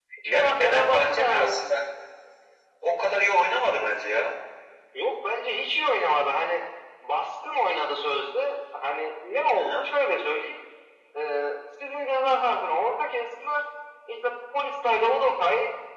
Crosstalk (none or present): present